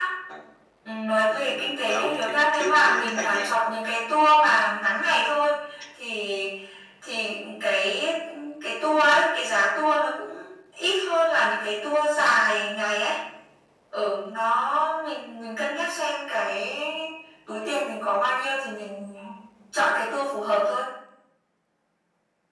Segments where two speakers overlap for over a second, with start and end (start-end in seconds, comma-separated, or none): 1.2-3.6